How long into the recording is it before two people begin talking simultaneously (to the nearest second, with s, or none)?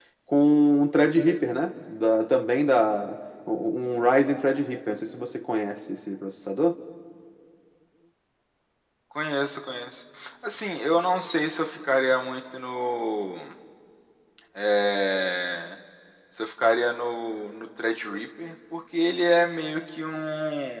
none